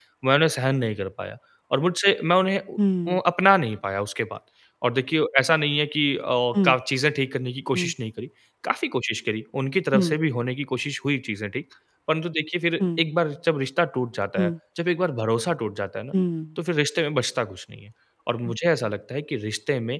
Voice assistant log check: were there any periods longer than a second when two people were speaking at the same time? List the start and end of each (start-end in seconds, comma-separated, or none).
none